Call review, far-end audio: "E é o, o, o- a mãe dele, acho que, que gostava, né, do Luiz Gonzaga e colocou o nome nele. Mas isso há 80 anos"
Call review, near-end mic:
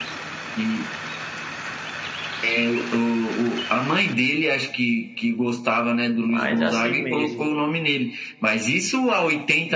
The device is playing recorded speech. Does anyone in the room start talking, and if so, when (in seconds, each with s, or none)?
6.3 s